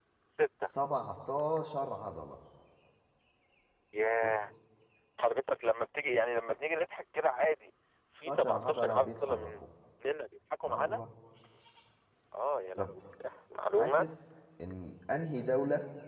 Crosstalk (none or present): present